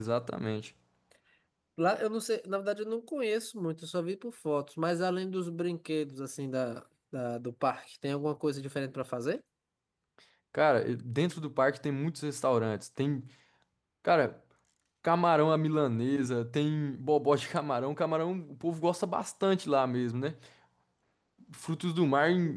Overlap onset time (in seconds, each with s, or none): none